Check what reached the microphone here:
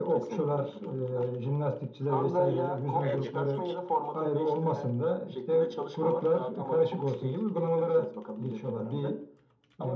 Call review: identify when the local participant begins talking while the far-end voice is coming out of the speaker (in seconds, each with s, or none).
3.0 s